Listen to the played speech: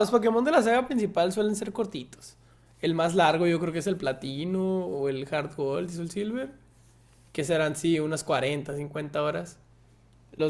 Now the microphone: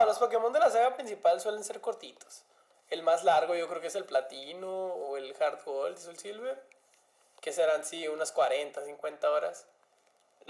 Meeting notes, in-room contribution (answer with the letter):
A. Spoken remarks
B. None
B